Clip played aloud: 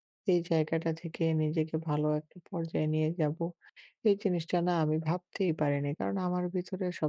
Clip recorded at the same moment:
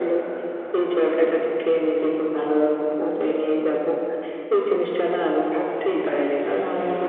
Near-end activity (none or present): none